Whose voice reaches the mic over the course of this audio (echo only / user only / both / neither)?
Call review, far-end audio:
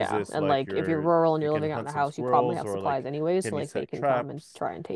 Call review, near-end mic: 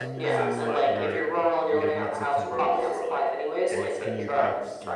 both